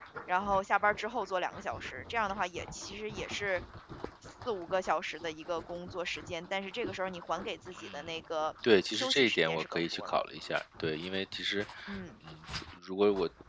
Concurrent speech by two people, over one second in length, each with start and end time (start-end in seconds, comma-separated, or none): 8.9-10.2